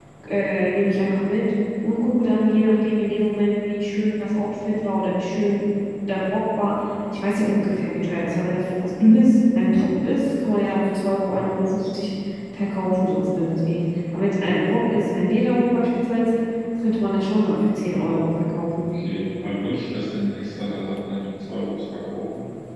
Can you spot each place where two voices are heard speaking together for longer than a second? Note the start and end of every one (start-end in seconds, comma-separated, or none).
none